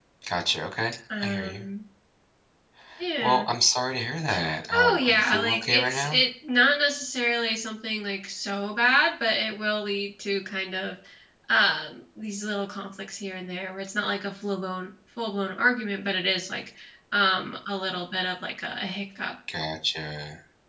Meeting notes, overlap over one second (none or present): present